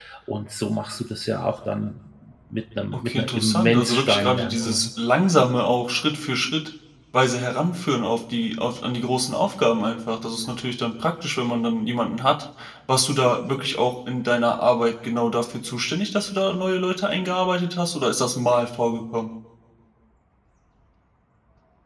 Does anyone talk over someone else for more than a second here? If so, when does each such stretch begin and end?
2.9-4.9

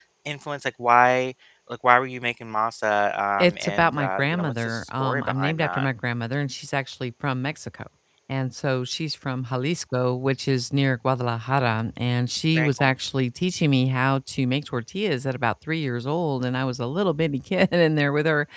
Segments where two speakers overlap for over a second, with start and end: 3.4-5.8

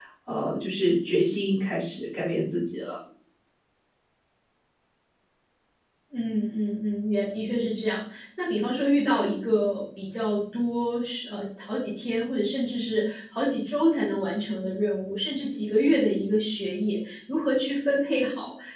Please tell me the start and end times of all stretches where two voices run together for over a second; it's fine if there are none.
none

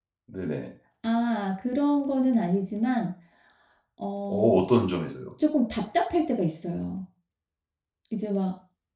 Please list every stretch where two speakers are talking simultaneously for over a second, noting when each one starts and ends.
none

